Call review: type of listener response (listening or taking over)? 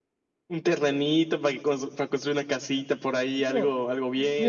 taking over